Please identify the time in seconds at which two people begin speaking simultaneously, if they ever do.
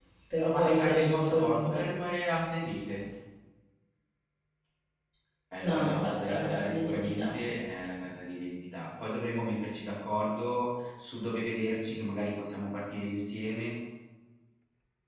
1 s

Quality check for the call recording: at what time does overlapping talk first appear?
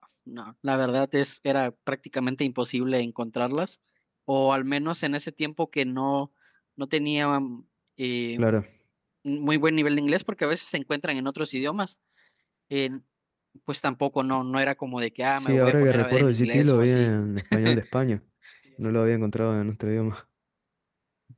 15 s

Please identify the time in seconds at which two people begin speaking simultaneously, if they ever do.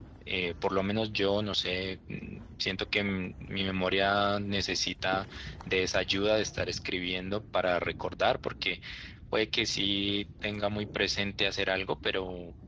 none

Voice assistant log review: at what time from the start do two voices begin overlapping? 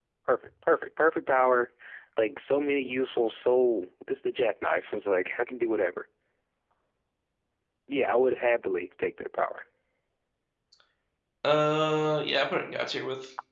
none

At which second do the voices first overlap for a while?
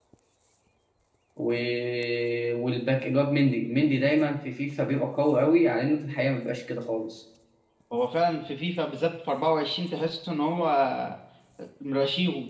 none

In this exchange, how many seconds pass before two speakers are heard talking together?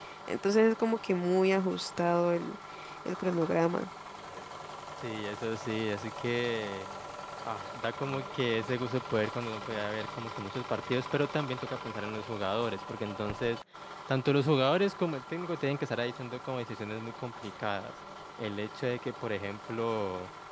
none

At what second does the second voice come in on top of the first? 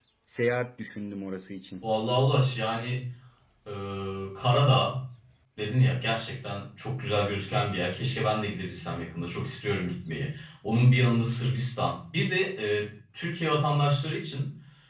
none

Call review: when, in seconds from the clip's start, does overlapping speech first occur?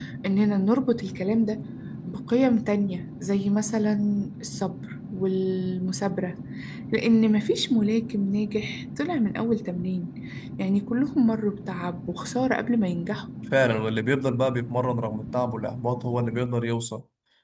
none

